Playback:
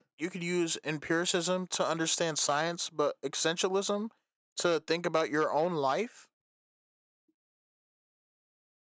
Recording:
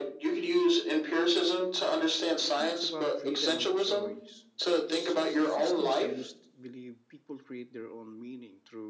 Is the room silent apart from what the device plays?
No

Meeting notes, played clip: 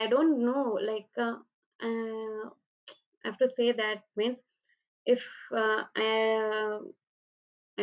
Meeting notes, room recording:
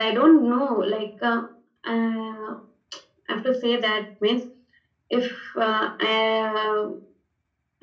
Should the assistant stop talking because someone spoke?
No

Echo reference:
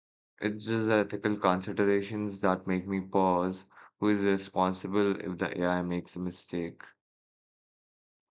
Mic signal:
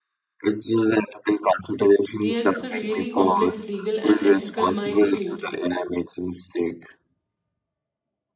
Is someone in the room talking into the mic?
Yes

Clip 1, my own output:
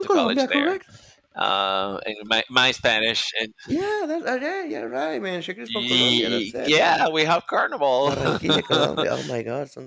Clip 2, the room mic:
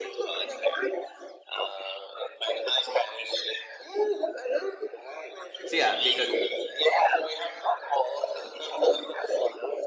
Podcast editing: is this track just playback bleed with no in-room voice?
No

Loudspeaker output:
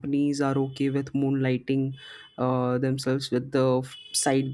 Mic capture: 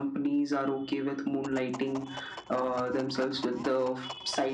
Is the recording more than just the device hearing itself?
No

